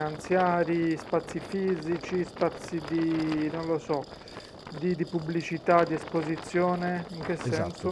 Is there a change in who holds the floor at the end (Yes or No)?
Yes